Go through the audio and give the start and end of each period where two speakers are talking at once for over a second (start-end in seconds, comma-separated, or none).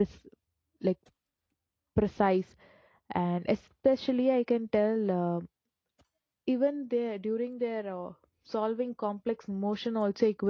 none